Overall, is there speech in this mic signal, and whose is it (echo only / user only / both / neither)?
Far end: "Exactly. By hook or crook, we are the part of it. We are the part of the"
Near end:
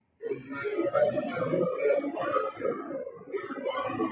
echo only